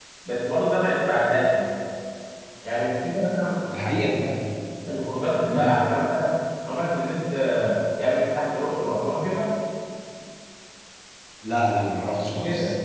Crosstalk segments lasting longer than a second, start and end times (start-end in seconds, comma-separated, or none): none